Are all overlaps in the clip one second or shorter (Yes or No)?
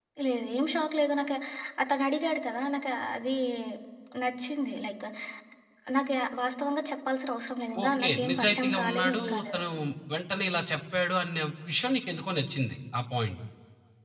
No